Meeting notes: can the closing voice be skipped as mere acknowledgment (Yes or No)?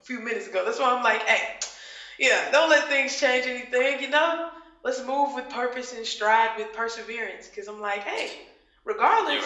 Yes